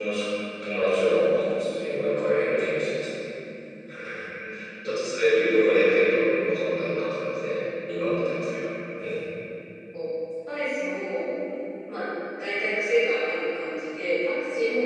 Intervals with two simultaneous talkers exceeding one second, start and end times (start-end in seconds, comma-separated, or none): none